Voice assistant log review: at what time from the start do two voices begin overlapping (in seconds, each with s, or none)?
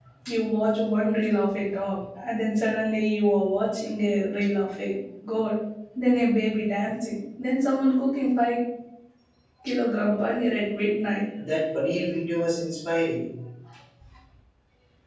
none